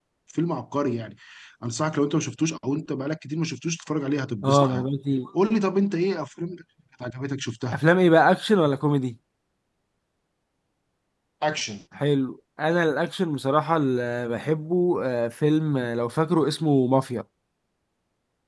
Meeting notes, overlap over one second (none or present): none